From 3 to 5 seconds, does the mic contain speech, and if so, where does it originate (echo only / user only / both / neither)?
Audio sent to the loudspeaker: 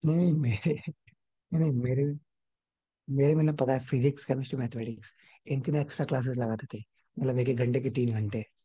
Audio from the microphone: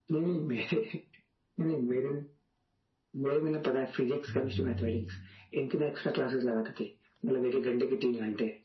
both